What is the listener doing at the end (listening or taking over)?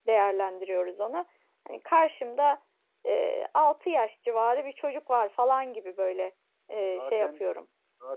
taking over